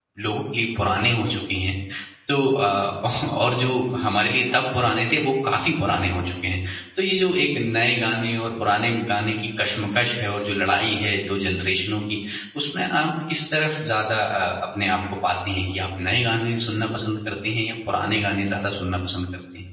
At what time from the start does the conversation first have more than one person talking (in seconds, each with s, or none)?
none